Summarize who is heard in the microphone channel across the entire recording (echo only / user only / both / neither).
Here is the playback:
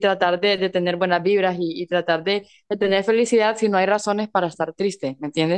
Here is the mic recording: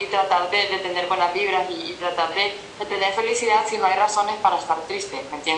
echo only